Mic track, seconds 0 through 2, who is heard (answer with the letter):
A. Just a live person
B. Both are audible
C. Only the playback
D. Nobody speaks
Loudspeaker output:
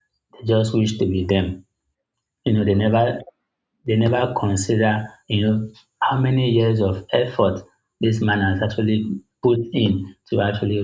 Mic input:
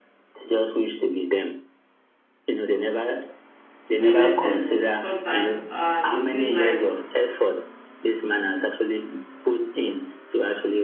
C